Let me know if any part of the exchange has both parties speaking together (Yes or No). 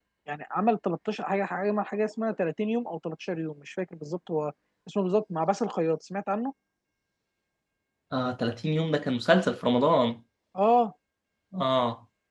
No